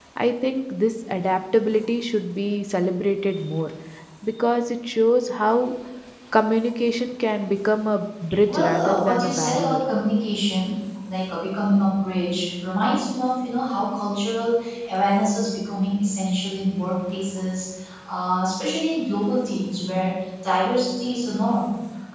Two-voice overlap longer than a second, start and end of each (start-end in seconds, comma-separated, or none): 8.5-9.8